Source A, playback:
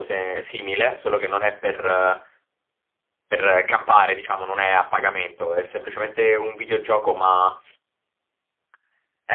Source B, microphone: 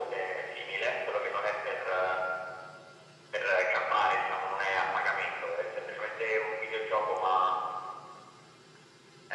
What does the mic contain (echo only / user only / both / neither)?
echo only